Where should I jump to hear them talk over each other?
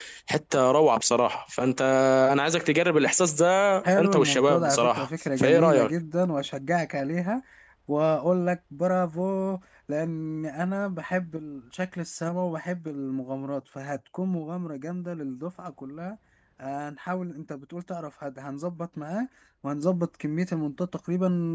3.8 s

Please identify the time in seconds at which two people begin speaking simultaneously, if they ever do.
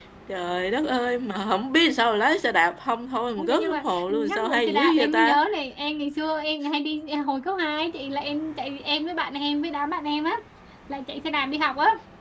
3.4 s

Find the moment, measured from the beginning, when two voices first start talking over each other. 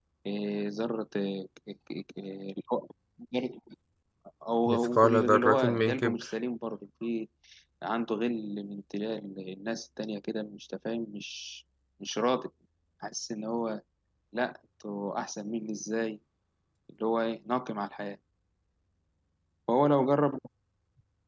4.7 s

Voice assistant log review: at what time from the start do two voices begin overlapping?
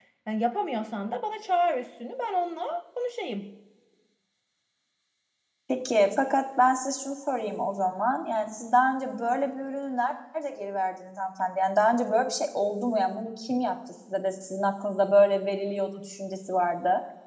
none

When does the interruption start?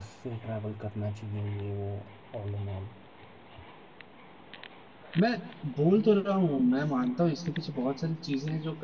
none

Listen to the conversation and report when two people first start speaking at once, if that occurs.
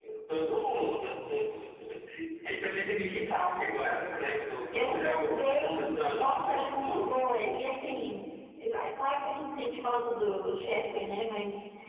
4.7 s

